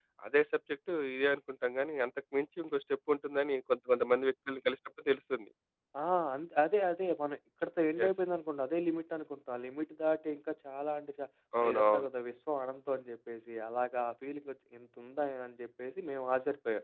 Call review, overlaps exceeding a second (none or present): none